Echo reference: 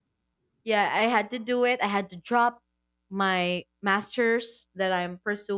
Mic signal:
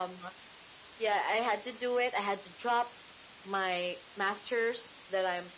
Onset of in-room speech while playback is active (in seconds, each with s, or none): none